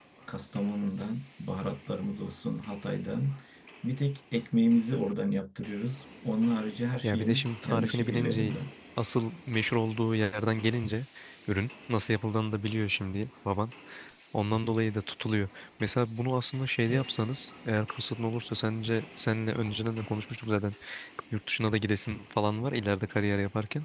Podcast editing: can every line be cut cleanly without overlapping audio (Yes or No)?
No